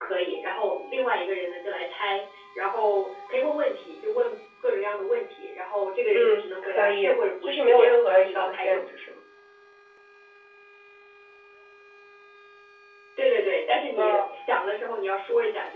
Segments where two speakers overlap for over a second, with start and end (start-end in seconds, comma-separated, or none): 6.1-8.8